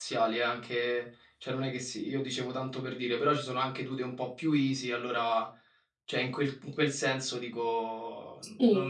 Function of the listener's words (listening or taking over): listening